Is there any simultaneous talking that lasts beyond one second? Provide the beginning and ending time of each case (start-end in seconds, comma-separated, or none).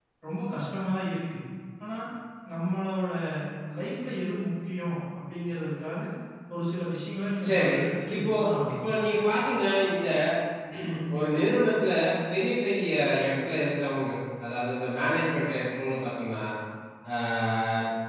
none